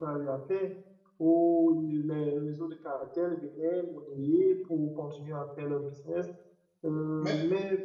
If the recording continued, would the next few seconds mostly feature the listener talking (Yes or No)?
No